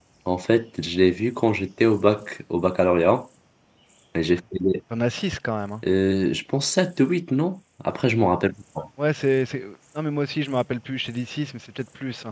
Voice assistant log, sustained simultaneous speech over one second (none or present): none